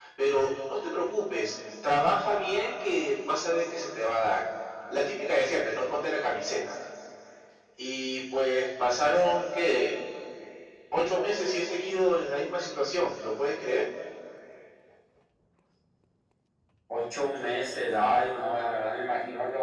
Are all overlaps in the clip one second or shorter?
Yes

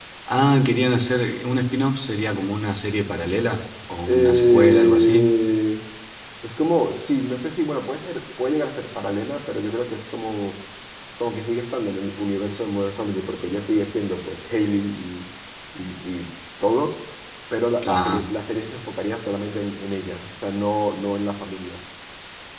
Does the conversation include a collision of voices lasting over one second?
Yes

